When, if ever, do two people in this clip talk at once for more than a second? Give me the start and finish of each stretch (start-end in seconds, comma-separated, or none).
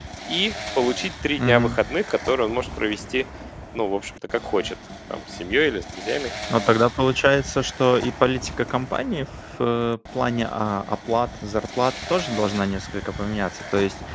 none